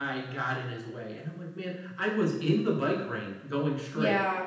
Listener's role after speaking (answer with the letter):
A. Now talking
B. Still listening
B